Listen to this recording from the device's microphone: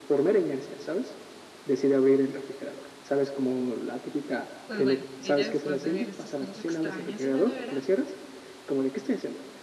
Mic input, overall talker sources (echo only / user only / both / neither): both